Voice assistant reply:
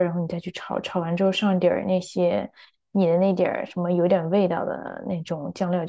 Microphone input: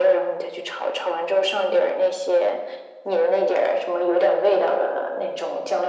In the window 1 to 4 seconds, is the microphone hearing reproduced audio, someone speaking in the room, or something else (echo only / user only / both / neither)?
echo only